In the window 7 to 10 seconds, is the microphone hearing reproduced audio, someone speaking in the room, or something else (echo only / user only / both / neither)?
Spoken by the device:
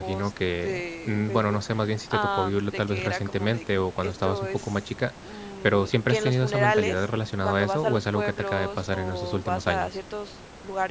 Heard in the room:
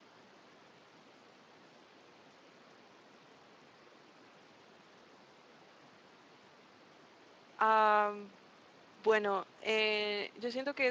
user only